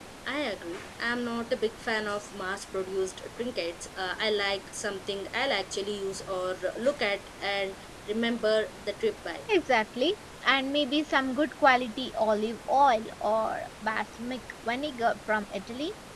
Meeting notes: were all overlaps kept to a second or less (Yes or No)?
Yes